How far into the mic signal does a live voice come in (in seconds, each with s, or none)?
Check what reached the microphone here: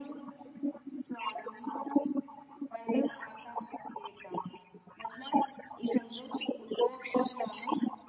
none